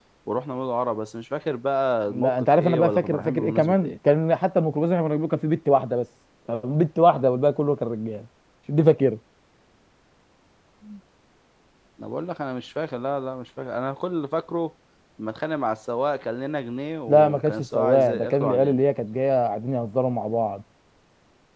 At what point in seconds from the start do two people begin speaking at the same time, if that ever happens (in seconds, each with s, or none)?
2.1 s